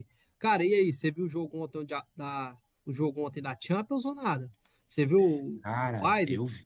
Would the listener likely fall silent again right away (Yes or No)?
No